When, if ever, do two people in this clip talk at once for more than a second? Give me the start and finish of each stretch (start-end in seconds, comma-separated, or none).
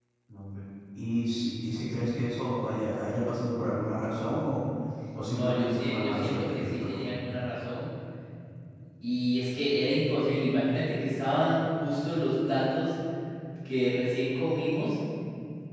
5.3-7.0